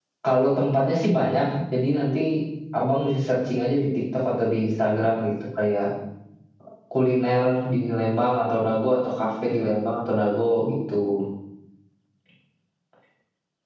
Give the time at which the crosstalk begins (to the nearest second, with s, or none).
none